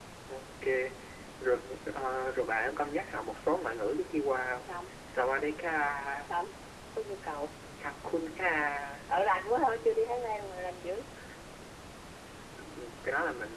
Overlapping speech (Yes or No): No